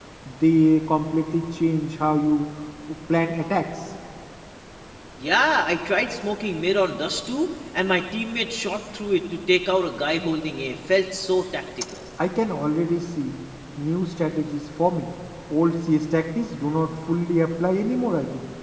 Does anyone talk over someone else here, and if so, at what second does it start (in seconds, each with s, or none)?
none